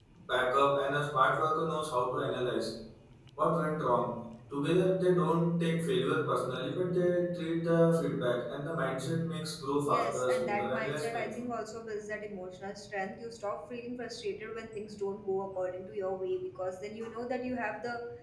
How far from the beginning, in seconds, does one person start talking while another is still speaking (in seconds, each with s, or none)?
9.8 s